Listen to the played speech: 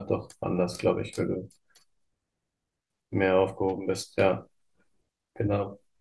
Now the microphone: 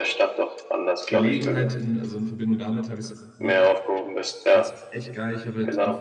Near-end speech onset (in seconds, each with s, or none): 1.1 s